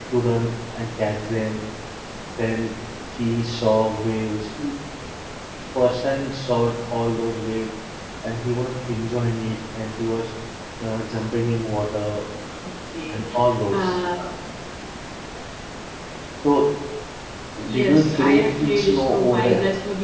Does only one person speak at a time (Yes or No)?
No